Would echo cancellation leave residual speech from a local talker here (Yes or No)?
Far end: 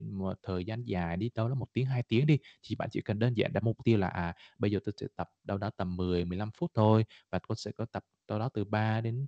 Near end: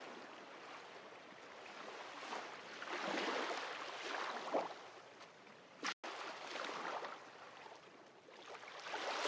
No